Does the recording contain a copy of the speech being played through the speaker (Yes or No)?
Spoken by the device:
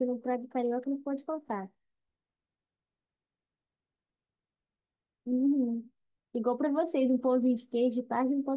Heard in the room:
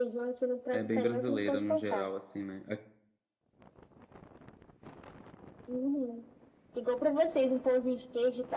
Yes